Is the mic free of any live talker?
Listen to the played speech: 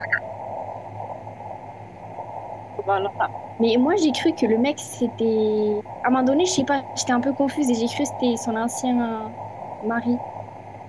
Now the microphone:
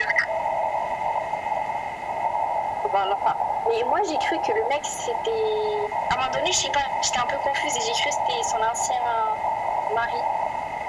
Yes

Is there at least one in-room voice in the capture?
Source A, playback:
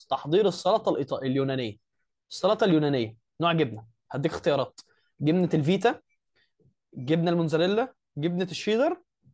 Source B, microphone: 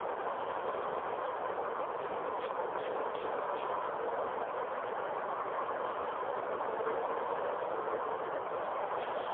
No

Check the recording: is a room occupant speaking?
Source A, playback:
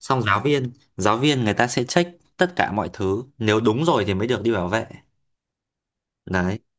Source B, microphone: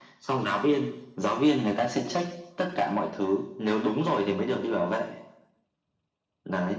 No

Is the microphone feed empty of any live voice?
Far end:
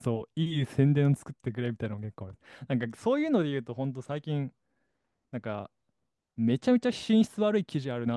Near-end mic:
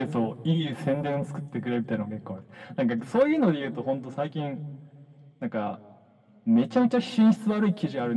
Yes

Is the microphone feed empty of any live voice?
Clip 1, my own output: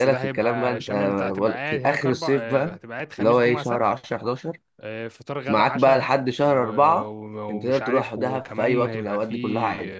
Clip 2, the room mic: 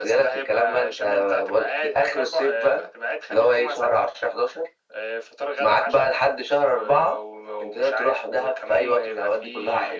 Yes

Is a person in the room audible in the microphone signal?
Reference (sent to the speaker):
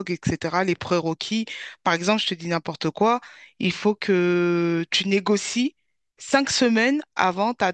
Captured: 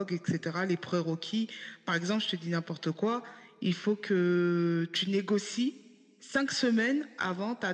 No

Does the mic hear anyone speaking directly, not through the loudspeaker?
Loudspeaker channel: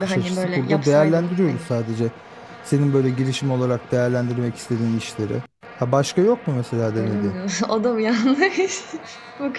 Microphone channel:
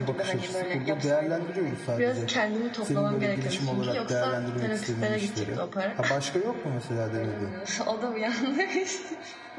Yes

